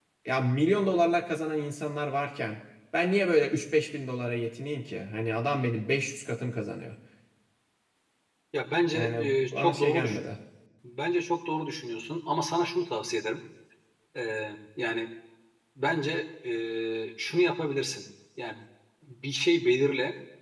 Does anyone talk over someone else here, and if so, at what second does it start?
8.9 s

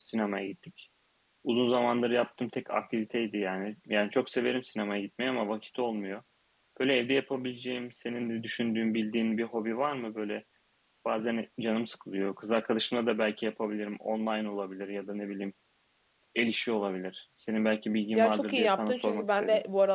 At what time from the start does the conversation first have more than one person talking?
18.2 s

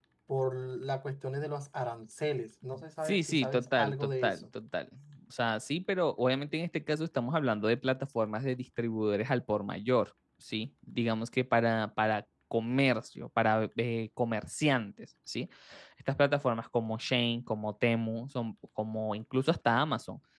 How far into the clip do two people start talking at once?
3.0 s

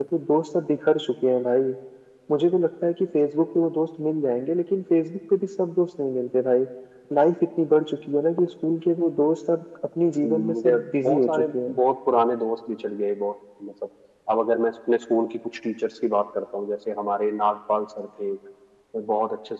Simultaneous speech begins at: 10.2 s

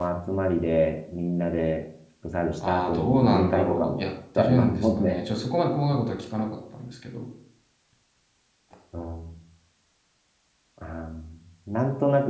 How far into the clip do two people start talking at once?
2.6 s

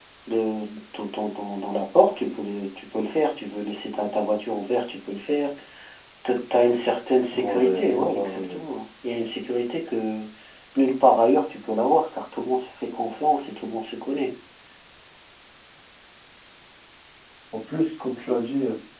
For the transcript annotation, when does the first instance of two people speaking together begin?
7.3 s

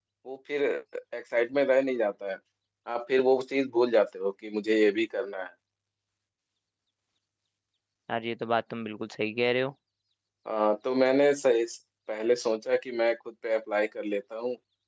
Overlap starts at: none

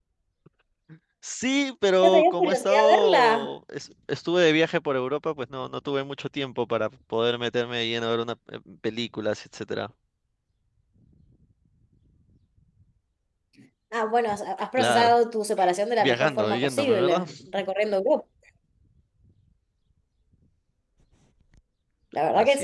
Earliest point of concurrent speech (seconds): 2.0 s

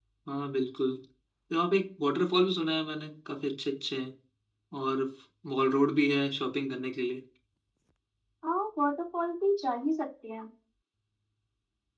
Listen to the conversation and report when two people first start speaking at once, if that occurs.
none

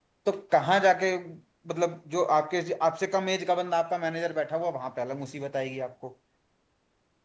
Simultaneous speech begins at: none

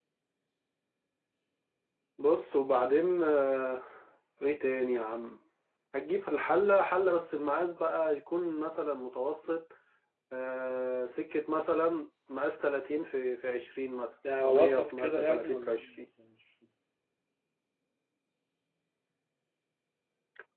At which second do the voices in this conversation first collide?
14.2 s

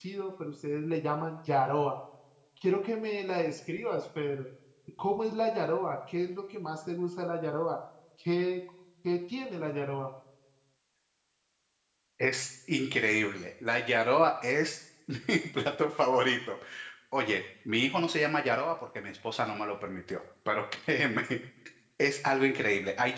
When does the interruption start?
none

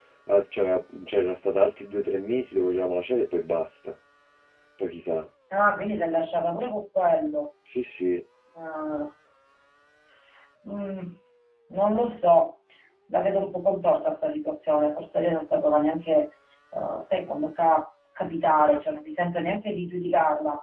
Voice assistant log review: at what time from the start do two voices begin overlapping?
none

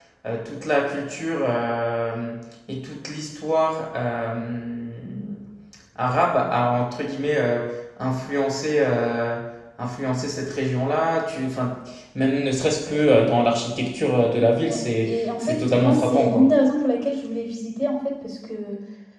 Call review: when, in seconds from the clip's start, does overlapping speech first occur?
14.6 s

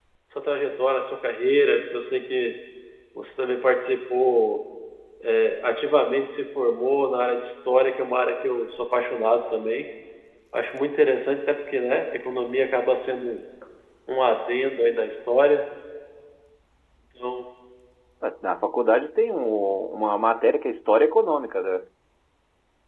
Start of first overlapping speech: none

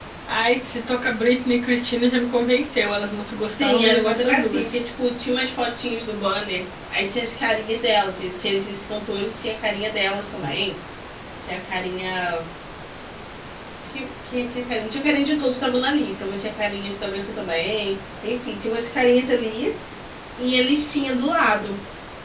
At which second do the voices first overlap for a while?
3.4 s

